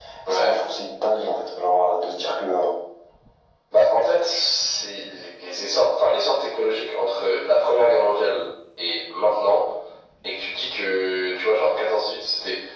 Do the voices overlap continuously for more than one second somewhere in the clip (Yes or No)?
No